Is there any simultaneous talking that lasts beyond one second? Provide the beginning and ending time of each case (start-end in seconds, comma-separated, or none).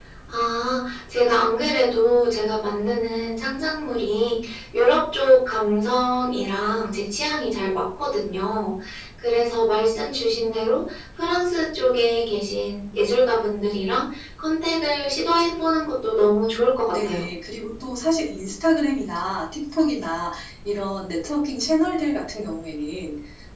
none